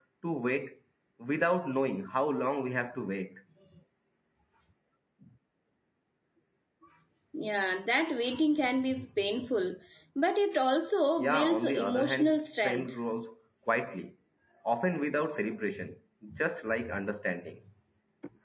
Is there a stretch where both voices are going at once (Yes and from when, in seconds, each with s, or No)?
Yes, from 11.2 s